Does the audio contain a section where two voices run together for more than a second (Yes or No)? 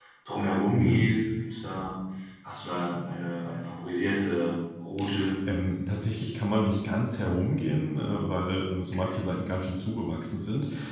No